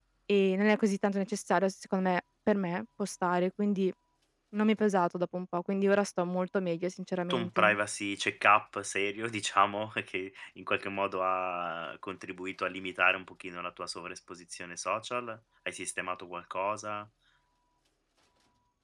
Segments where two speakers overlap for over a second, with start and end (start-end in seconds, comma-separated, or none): none